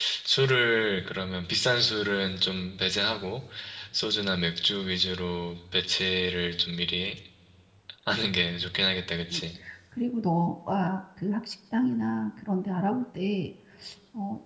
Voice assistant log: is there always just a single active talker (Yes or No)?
Yes